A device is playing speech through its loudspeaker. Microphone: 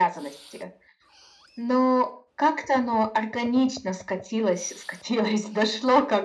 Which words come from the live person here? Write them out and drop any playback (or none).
none